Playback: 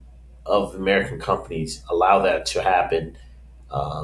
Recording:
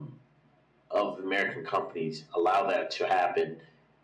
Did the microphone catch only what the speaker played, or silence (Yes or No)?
Yes